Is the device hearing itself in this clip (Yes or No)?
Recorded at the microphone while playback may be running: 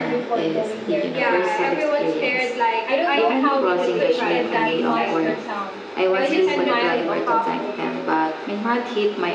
Yes